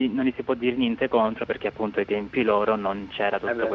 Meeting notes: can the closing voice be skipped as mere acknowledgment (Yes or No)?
Yes